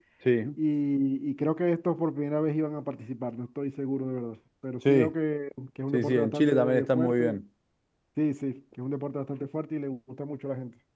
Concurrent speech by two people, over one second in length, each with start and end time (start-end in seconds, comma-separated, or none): 5.9-7.4